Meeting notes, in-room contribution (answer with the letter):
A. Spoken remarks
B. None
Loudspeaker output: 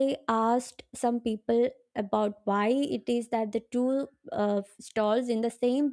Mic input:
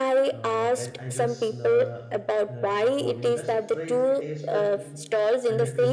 A